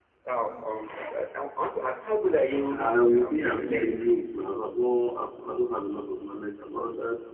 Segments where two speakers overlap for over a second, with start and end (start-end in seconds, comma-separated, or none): 2.8-4.0